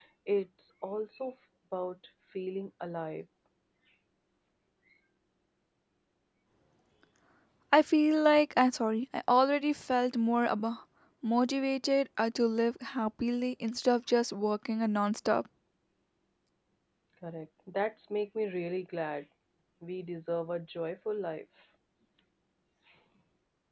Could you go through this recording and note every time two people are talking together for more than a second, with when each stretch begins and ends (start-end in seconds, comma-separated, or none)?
none